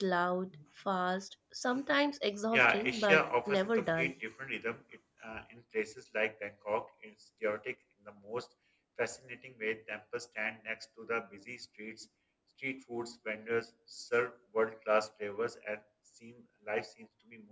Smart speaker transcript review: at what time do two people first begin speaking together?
2.5 s

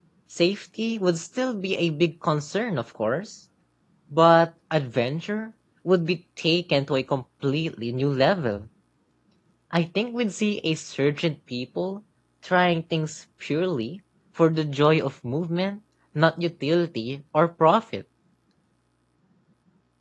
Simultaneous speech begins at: none

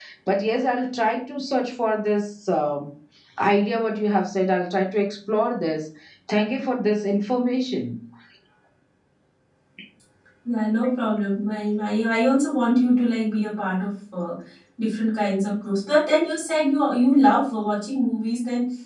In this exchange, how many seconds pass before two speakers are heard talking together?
none

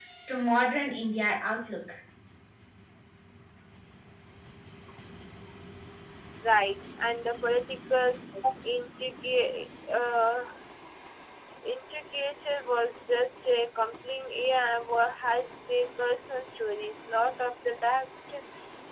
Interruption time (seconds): none

